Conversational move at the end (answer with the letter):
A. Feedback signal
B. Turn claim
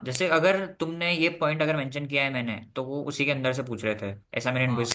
B